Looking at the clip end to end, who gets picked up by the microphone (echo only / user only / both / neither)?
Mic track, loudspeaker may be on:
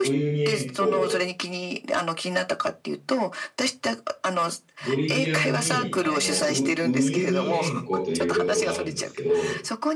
both